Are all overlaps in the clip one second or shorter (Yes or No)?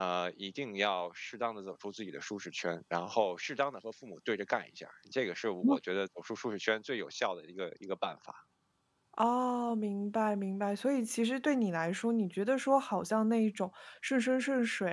Yes